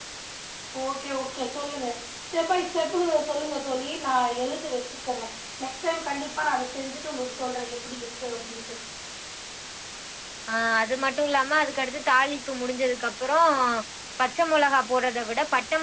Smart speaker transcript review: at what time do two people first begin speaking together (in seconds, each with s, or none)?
none